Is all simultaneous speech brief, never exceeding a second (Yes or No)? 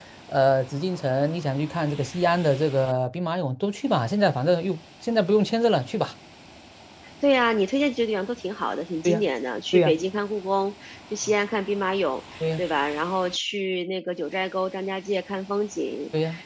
Yes